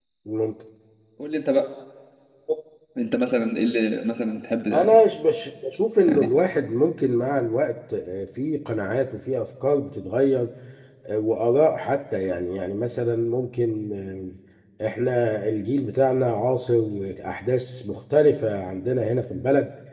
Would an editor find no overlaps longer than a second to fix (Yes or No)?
Yes